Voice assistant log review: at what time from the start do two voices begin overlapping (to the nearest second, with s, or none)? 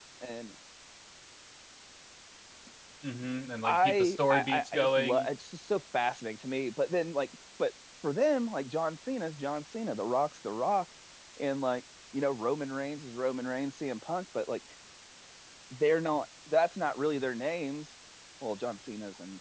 4 s